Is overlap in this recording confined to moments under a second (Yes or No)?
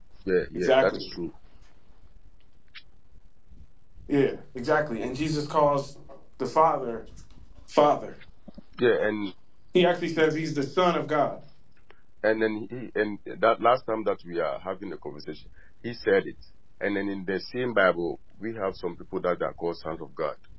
Yes